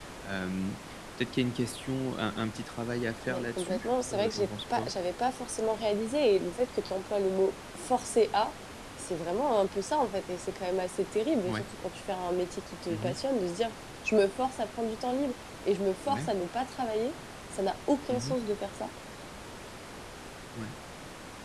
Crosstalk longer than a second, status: present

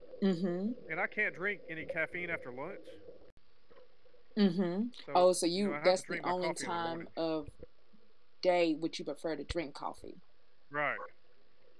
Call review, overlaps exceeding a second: present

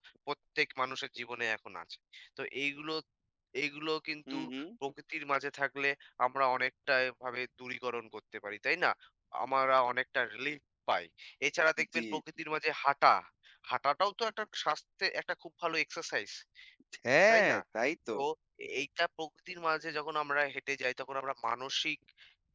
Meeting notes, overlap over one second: none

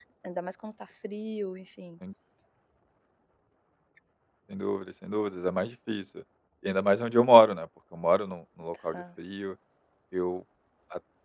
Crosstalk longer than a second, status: none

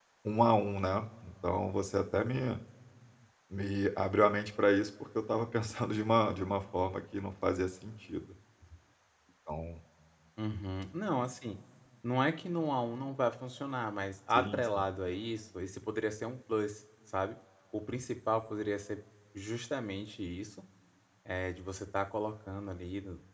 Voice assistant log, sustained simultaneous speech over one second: none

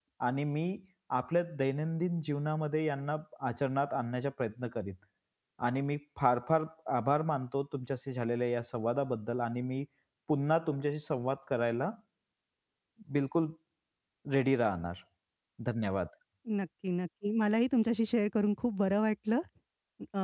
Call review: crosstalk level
none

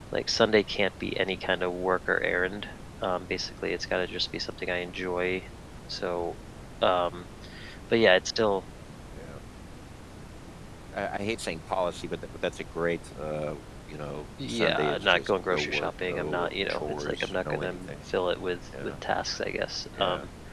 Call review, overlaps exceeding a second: present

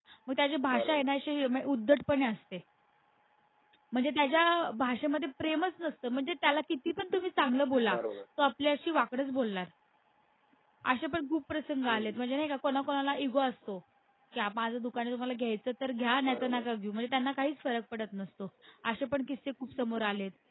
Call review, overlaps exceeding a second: none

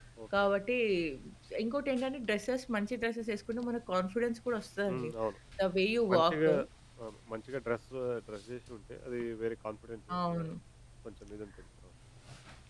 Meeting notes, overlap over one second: none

